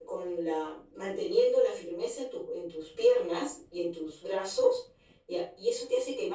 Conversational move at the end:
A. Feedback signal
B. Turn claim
A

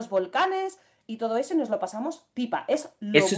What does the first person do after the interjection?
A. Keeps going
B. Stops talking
B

